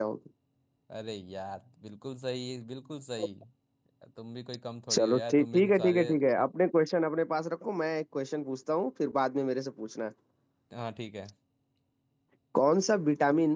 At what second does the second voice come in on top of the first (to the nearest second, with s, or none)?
5 s